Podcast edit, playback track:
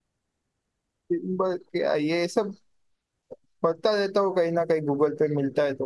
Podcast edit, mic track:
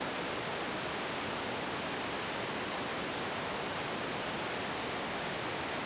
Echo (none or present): none